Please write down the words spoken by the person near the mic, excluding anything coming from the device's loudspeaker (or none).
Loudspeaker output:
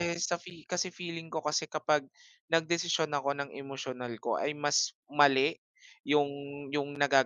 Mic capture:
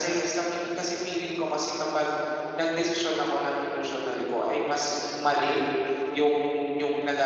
none